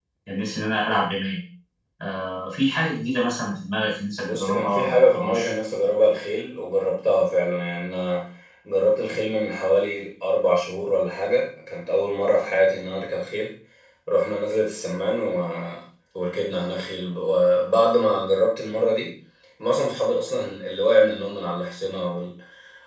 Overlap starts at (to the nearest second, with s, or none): 4 s